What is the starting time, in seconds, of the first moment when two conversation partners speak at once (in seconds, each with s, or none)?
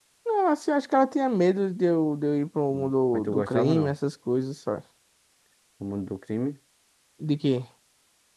2.7 s